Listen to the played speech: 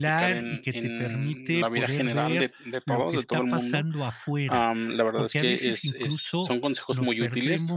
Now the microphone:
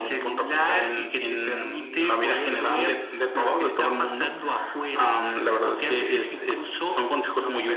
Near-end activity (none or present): none